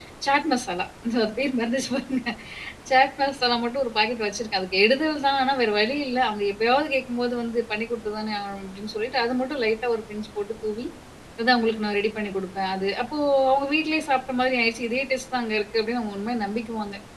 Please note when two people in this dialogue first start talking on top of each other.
none

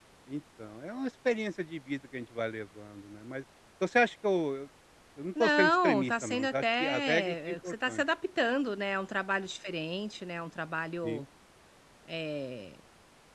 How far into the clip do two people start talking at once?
5 s

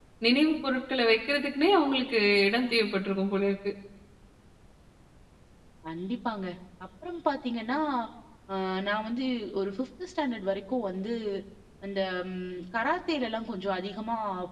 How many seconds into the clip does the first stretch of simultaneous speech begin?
none

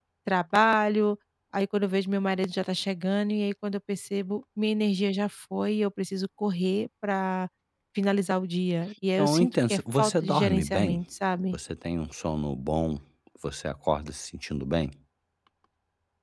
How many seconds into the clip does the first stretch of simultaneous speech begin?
9 s

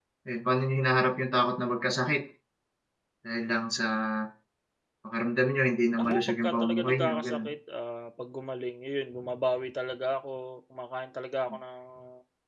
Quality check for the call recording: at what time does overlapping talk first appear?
6 s

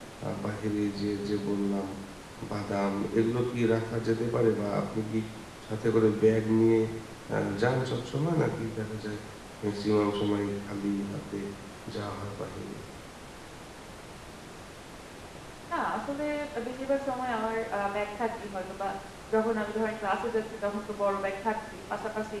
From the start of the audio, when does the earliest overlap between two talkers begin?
none

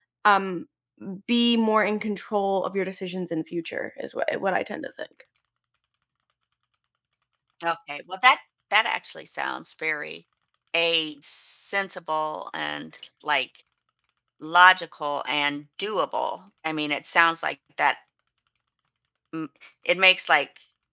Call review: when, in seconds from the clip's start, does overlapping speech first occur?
none

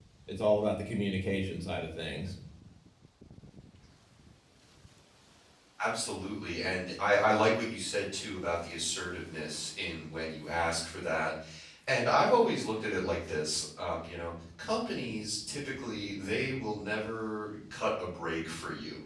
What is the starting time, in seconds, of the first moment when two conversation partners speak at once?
none

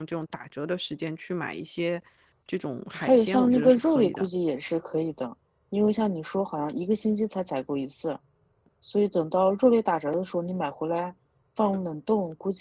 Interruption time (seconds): 3 s

